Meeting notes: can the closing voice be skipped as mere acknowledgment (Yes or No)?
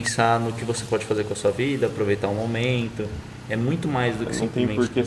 No